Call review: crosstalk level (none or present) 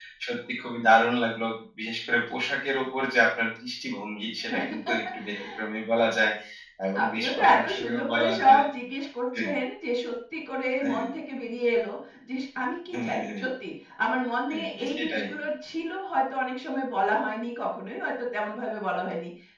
present